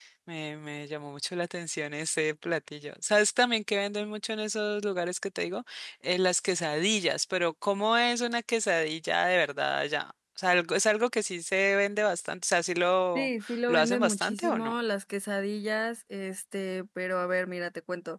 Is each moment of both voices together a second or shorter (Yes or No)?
No